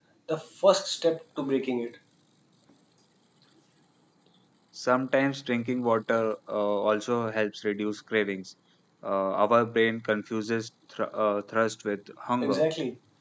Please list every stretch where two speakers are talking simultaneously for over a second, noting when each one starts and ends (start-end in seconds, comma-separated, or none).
none